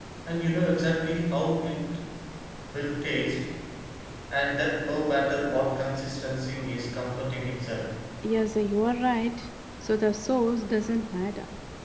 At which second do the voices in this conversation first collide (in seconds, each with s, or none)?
none